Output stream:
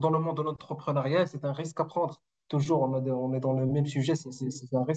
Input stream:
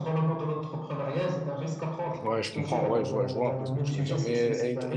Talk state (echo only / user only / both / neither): both